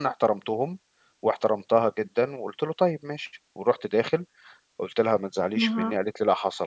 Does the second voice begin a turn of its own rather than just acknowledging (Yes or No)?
No